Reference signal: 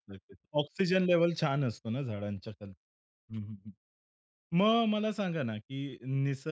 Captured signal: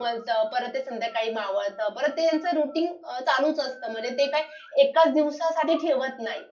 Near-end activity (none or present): present